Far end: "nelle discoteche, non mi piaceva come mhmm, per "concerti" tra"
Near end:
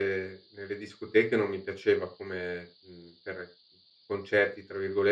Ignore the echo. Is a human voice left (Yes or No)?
No